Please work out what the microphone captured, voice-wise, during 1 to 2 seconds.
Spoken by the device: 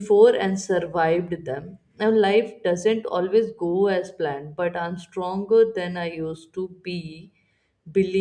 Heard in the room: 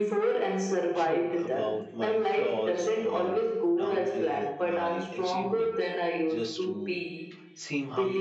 both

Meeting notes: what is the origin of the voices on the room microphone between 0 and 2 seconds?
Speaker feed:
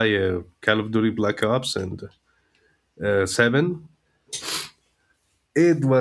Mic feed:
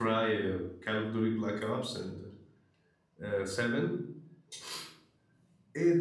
echo only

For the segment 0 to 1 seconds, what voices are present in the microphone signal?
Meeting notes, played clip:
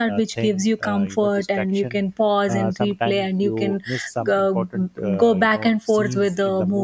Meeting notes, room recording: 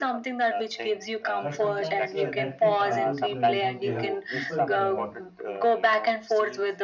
echo only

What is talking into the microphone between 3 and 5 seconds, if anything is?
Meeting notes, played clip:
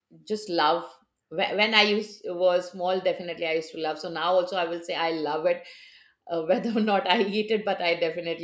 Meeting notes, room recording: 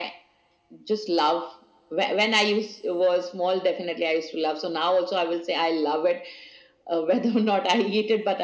echo only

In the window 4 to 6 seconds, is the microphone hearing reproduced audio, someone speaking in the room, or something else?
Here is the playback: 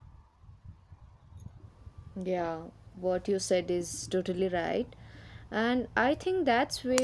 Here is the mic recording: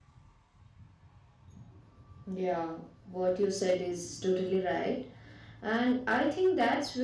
echo only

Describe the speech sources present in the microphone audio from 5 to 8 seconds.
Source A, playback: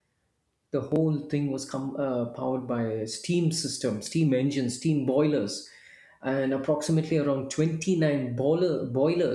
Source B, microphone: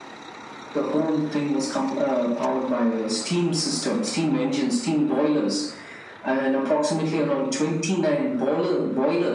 echo only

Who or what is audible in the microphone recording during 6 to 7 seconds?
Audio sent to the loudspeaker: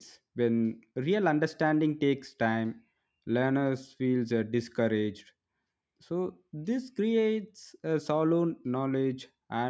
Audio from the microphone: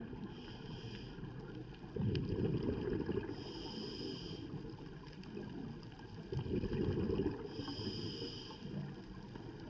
neither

